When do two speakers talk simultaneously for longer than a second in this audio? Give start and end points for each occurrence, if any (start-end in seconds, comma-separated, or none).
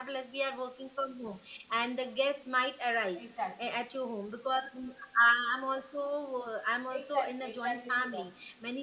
6.9-8.2